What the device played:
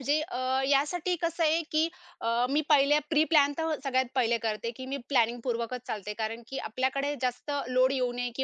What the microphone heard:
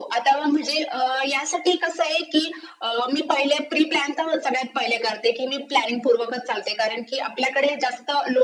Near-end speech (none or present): none